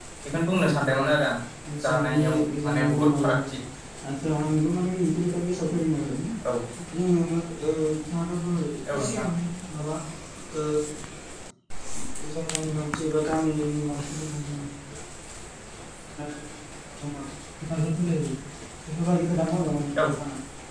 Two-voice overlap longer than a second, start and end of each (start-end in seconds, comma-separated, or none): 1.9-3.4